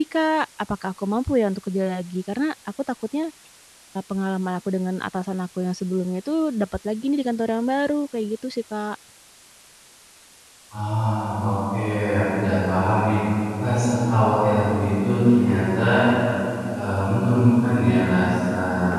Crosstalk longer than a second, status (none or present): none